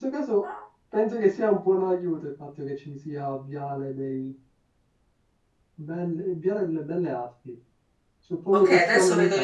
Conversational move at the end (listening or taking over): taking over